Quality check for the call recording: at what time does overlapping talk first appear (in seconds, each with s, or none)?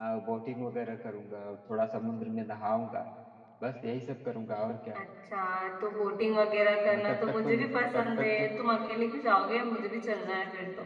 6.9 s